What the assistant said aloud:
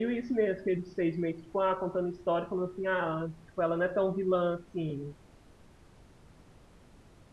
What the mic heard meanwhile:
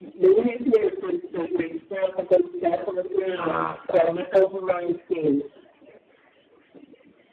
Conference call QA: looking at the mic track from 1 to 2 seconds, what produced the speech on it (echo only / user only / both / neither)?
echo only